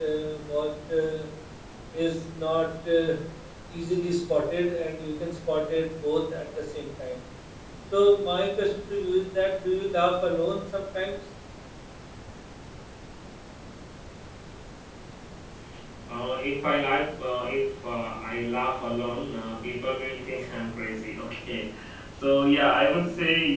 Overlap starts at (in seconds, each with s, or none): none